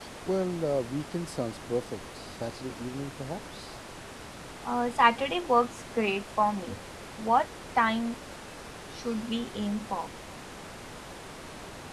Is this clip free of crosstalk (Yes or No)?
Yes